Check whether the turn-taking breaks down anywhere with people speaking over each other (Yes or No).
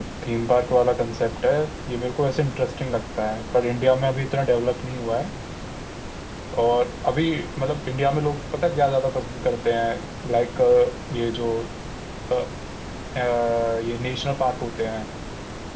No